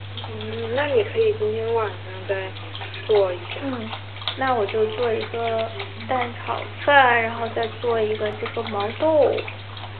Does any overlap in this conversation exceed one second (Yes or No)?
No